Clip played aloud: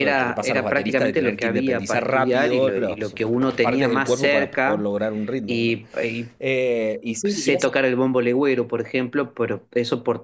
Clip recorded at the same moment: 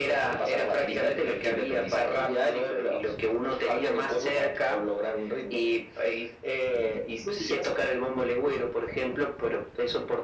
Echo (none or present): present